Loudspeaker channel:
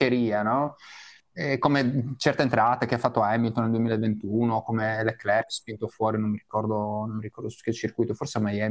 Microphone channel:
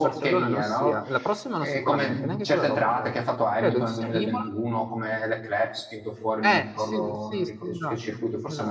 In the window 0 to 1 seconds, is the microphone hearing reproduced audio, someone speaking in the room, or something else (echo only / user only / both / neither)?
both